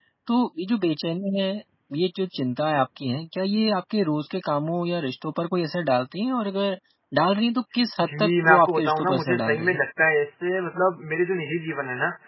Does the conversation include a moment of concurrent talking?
Yes, from 8.0 s

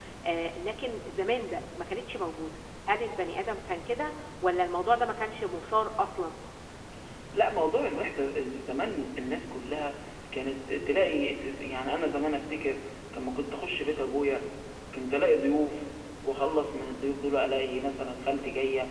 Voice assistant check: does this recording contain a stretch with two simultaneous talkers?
No

